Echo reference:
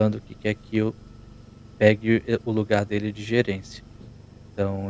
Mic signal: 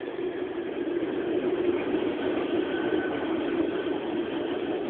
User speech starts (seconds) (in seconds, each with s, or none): none